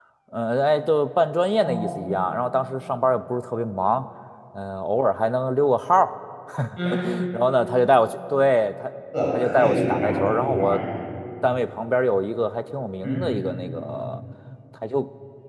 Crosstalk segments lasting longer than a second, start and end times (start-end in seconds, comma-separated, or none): 9.3-10.8